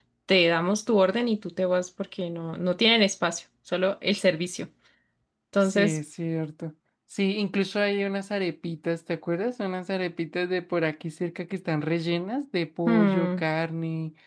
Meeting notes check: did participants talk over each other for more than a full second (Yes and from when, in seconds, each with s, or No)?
No